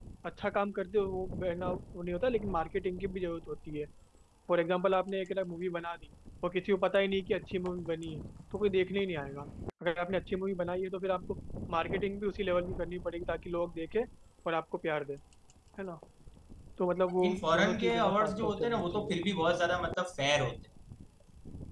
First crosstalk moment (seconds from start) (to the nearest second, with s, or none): 17 s